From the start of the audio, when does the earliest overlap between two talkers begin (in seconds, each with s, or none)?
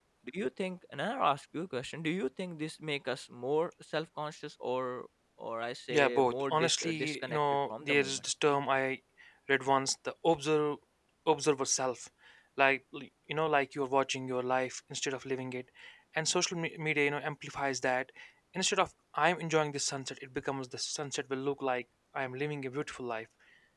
5.9 s